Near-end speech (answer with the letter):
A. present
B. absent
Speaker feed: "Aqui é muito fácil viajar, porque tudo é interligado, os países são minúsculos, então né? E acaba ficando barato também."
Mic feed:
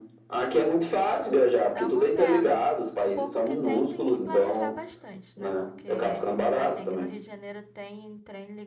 A